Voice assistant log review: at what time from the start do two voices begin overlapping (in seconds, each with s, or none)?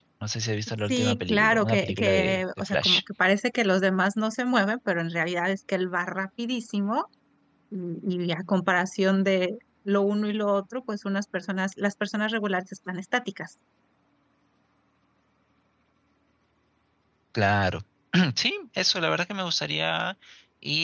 0.9 s